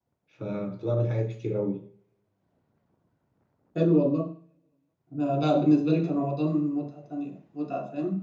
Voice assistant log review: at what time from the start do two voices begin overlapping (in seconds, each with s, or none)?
none